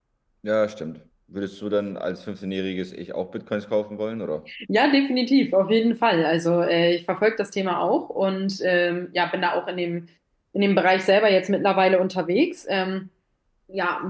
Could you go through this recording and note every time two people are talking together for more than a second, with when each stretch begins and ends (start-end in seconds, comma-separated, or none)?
none